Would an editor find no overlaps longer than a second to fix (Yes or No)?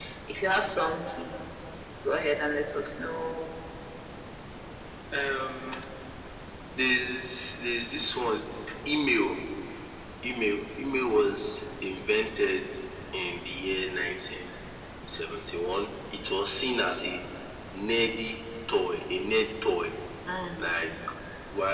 Yes